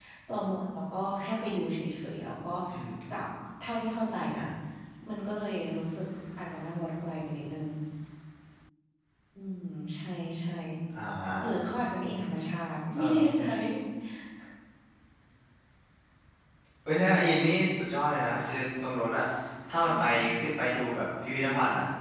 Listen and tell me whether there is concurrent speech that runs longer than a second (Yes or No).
No